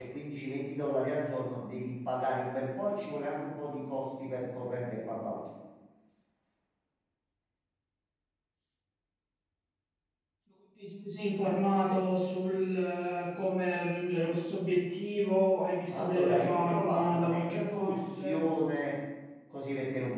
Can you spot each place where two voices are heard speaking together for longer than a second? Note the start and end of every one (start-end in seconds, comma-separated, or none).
15.9-18.4